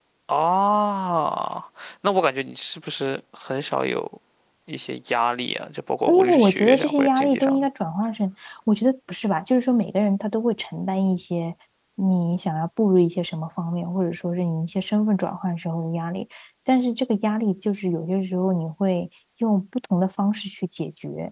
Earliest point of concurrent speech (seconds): 6 s

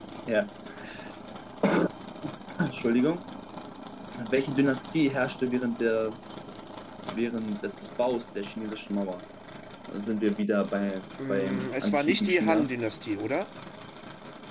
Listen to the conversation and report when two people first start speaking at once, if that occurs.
11 s

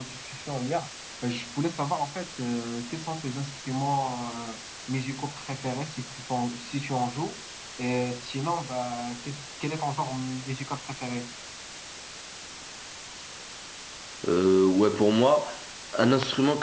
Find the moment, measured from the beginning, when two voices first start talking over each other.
none

